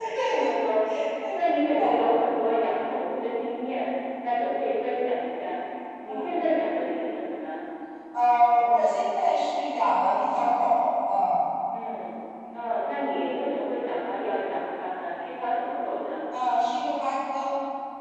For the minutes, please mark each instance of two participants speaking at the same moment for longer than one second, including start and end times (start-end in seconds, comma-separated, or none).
none